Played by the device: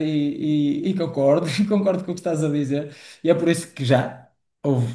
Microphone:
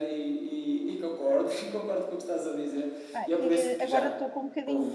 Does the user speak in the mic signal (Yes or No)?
Yes